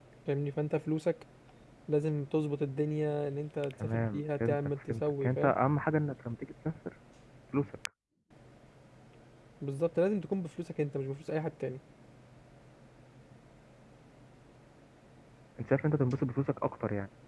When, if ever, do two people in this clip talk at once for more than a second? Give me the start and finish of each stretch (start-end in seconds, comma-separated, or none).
3.8-5.5